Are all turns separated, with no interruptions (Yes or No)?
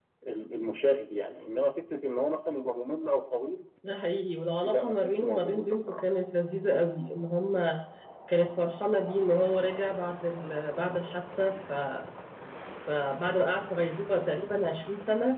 No